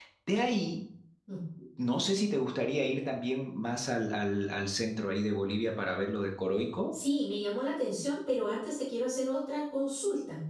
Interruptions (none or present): none